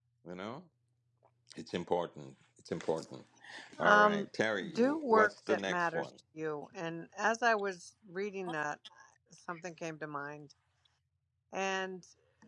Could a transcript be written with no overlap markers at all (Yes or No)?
No